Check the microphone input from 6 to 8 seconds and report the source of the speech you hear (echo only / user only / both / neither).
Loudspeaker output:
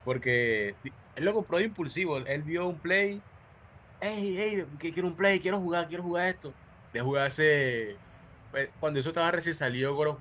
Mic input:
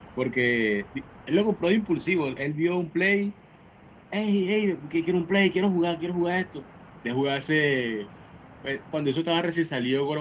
echo only